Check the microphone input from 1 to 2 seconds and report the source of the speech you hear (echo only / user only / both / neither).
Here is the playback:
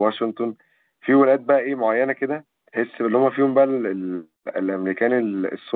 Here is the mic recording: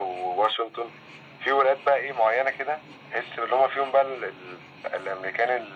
echo only